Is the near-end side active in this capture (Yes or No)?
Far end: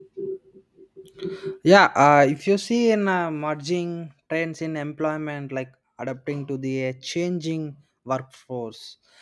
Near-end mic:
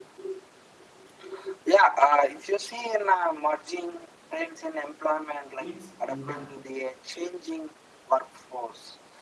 Yes